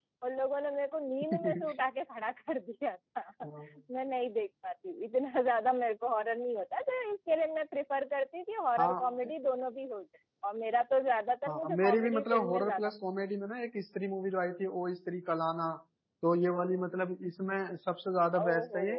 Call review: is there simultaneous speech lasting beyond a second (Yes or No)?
Yes